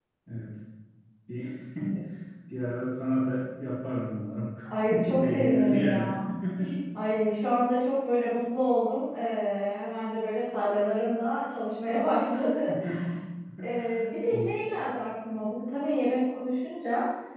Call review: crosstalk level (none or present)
present